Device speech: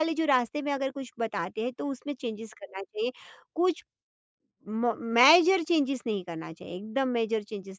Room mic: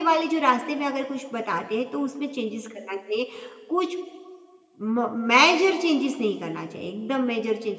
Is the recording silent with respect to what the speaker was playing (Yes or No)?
No